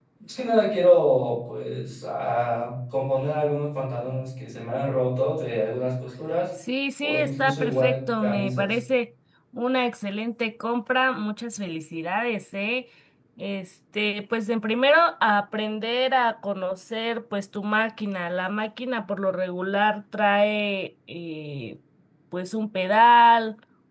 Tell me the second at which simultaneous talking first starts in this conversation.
7 s

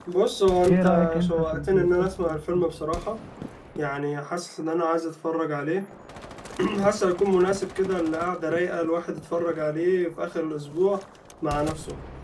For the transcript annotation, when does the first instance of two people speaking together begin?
1 s

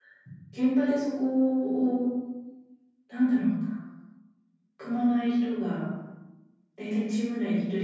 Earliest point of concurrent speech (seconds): none

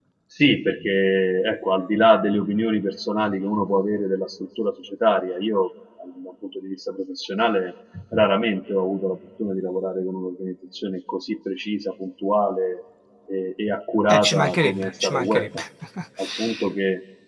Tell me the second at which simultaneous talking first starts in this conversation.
14 s

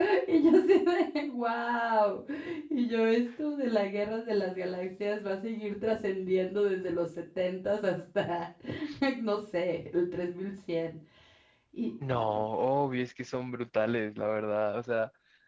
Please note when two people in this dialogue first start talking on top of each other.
none

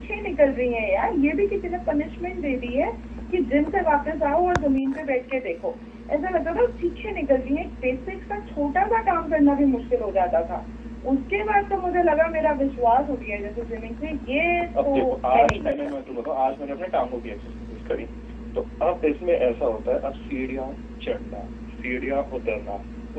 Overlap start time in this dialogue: 15 s

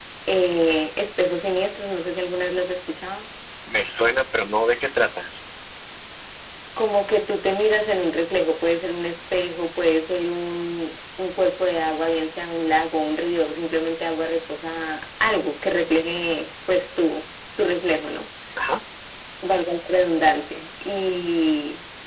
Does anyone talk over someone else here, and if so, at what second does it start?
none

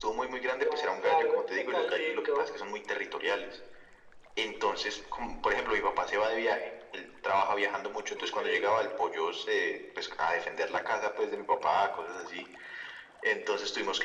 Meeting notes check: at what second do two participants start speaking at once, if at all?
1 s

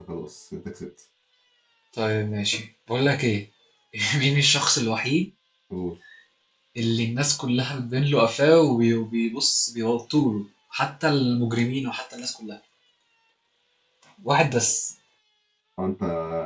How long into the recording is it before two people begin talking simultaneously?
none

